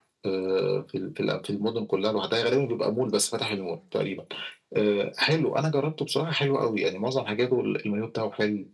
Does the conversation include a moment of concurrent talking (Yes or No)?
No